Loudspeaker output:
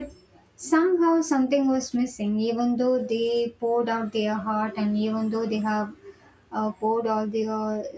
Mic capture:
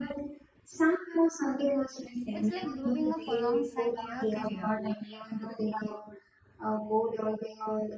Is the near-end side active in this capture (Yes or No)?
Yes